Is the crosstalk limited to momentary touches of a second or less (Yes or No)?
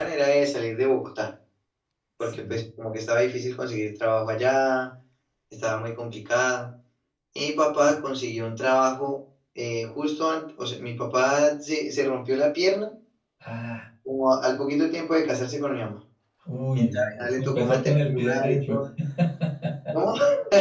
No